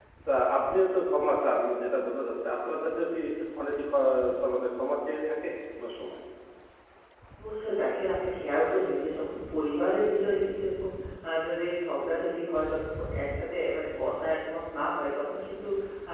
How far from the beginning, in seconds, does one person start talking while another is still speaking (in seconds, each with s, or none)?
none